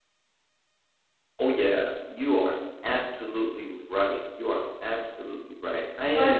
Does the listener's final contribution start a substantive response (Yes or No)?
No